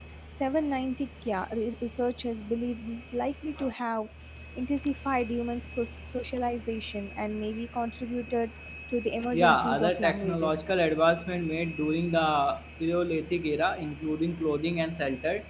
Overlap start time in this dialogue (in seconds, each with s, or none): 9.3 s